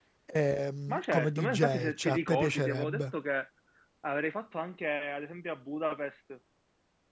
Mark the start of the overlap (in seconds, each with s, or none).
0.9 s